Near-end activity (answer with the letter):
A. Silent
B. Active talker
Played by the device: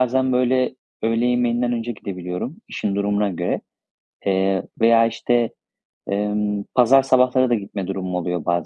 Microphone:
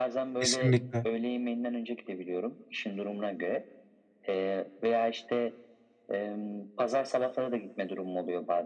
B